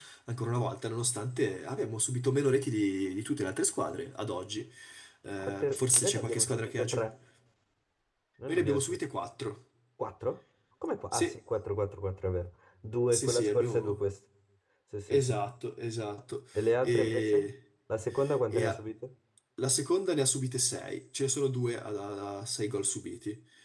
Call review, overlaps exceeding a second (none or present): present